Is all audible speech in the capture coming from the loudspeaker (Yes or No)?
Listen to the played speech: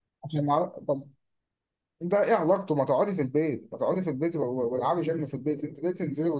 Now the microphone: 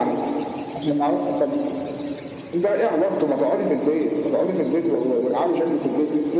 Yes